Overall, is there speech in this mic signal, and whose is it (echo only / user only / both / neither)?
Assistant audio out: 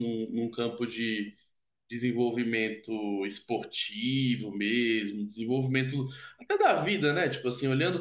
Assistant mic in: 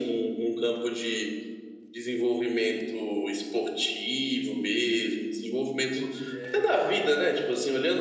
both